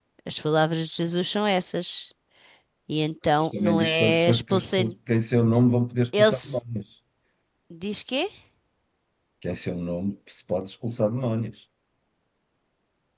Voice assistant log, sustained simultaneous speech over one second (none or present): present